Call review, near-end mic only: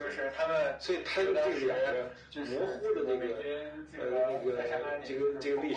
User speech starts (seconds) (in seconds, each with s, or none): none